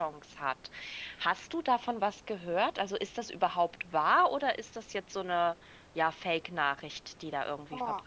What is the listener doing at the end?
taking over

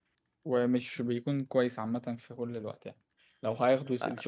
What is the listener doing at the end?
listening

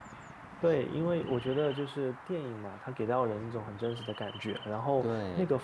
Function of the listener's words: listening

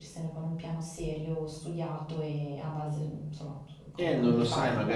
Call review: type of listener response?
taking over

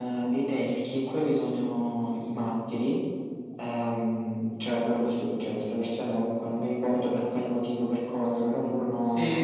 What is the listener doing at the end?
taking over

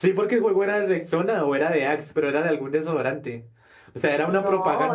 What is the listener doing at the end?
taking over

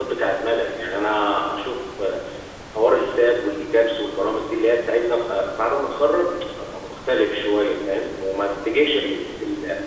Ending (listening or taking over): listening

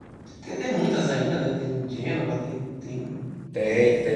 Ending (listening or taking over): taking over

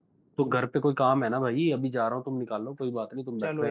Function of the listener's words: taking over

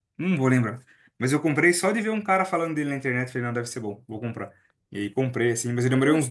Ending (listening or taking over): listening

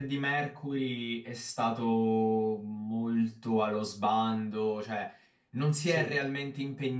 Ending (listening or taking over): listening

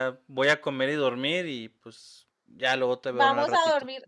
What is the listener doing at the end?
taking over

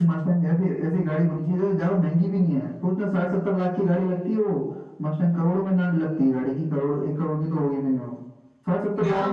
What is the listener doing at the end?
taking over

